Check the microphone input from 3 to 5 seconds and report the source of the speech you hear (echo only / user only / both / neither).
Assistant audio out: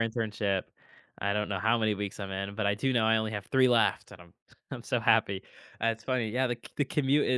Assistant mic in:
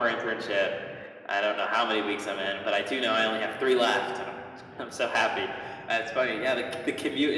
echo only